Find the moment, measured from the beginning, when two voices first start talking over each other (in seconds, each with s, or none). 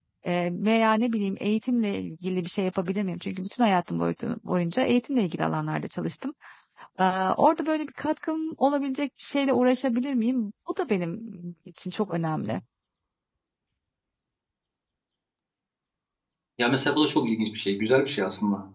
none